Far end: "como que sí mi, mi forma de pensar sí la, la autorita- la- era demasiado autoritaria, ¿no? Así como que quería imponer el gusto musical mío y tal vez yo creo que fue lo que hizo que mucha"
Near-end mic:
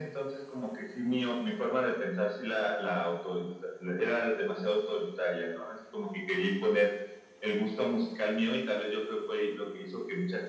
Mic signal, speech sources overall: echo only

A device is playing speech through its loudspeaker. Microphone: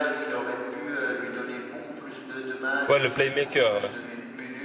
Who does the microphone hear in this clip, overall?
both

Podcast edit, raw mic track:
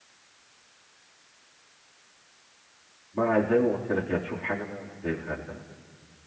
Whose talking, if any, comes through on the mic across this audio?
user only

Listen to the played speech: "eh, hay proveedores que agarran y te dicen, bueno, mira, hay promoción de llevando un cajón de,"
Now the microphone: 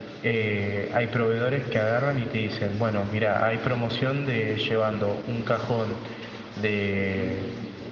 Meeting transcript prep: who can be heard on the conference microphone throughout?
both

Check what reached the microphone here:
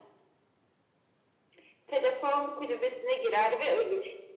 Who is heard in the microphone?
echo only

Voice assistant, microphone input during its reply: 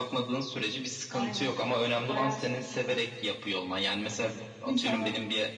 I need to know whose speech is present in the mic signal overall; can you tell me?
echo only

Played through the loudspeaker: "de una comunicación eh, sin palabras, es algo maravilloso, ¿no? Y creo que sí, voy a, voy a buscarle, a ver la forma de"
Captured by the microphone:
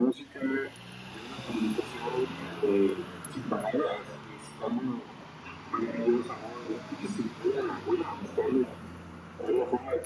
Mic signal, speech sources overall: echo only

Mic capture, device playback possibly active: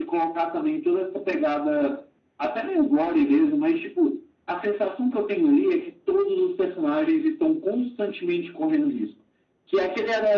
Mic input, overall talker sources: echo only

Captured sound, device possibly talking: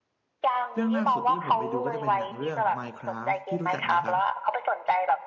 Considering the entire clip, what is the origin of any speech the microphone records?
both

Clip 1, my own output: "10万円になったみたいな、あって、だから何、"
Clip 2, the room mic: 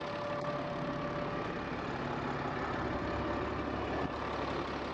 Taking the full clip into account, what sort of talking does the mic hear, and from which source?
neither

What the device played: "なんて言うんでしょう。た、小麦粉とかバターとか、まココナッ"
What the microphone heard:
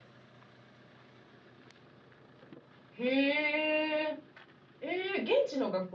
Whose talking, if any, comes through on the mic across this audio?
user only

